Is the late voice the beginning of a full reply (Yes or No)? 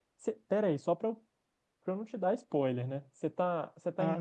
Yes